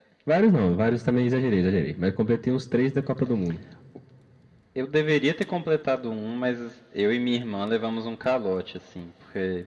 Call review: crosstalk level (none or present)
none